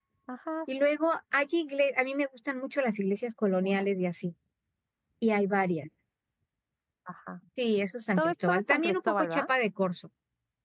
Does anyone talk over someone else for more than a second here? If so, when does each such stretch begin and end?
8.2-9.5

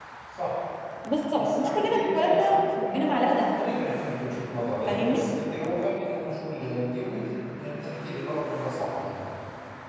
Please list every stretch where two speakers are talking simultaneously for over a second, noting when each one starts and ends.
1.4-3.6

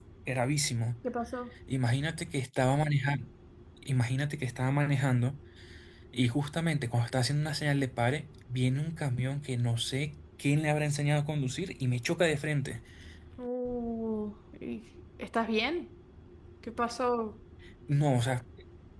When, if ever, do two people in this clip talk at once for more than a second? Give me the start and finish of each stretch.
none

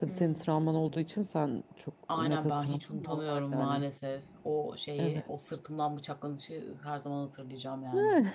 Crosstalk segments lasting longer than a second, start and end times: 2.1-3.8

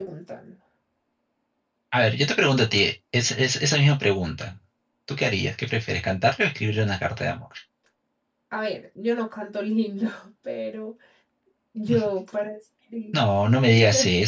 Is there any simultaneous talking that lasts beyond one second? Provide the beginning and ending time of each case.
none

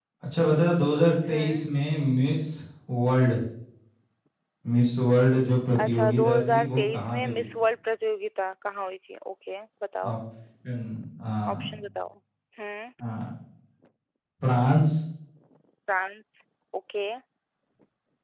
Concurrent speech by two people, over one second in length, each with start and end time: 5.8-7.5

